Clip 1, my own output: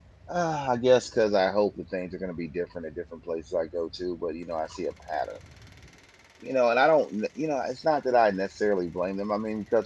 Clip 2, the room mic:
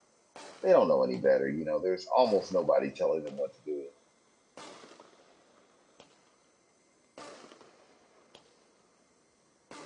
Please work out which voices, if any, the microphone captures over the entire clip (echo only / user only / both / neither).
user only